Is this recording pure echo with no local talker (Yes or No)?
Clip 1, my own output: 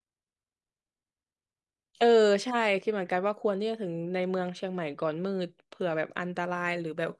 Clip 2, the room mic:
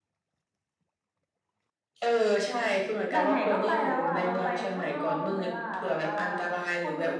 No